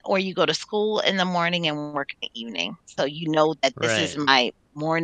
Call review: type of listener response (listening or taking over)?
listening